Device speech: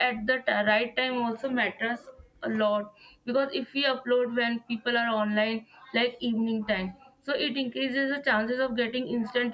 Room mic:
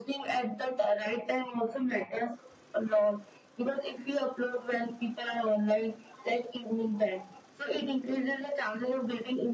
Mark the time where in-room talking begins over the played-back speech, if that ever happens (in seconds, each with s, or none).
none